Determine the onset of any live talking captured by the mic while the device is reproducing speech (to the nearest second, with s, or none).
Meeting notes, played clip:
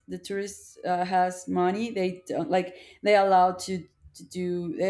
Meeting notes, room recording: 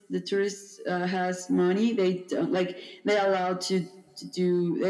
none